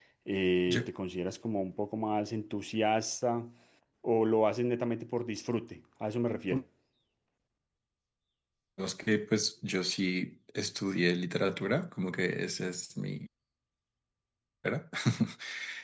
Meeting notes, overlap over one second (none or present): none